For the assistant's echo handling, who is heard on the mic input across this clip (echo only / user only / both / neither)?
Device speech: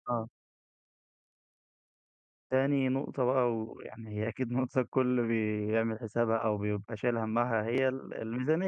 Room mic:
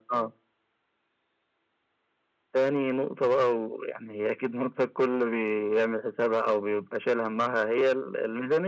echo only